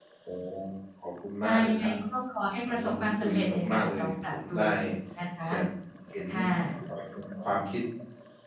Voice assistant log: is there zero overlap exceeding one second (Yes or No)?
No